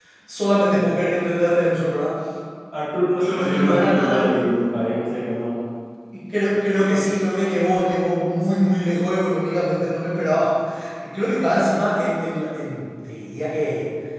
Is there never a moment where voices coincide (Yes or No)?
No